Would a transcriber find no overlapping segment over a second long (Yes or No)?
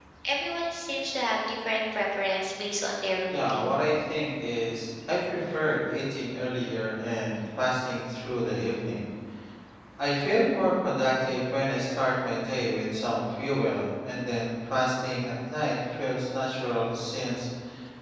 Yes